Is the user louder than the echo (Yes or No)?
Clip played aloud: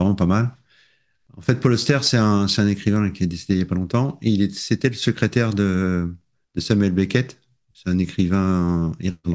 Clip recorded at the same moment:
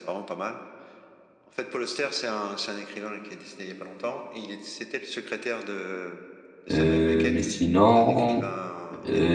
Yes